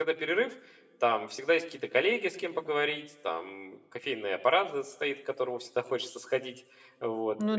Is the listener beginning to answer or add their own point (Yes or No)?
No